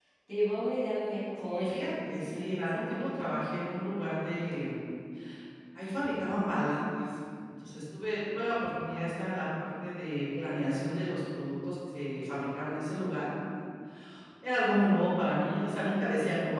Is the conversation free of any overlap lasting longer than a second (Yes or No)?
No